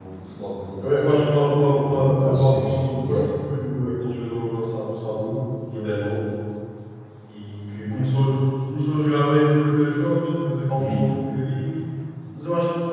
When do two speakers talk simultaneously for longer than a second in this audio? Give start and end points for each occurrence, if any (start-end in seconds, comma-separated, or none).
1.8-3.2